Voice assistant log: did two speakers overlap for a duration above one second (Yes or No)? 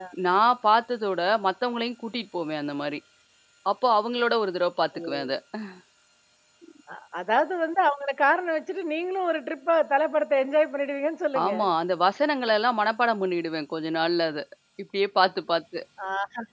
No